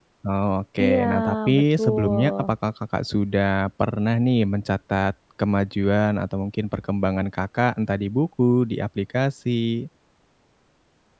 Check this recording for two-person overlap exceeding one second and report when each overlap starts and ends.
0.8-2.5

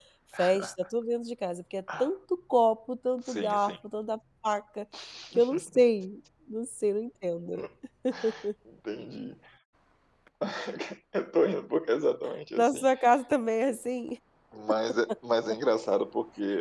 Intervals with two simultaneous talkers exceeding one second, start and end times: none

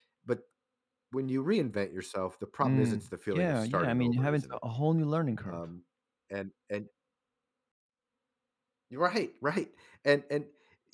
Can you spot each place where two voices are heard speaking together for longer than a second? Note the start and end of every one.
2.6-4.6

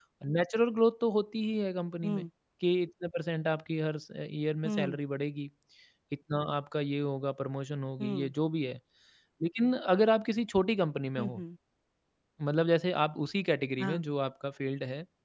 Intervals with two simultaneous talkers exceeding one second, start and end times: none

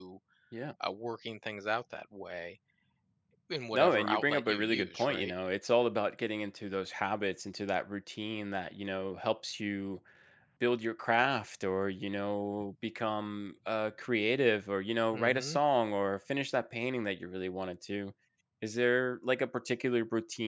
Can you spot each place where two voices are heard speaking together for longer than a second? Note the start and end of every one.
3.7-5.3

